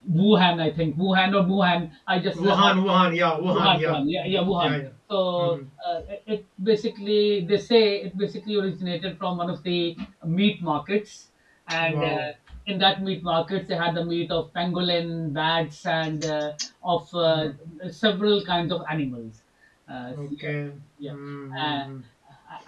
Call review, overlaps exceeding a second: present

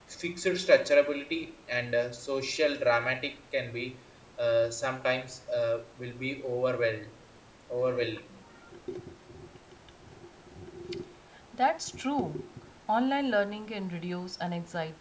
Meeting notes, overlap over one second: none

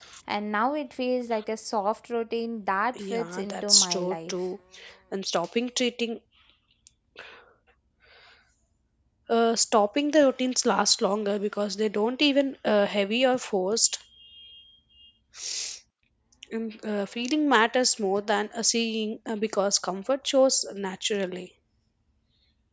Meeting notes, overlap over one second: present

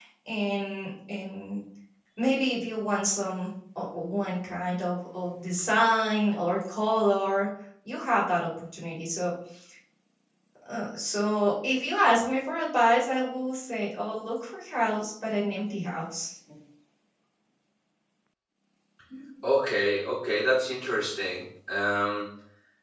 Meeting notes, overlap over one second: none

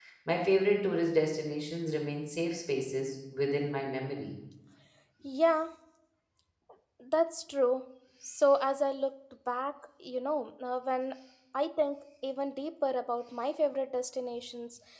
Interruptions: none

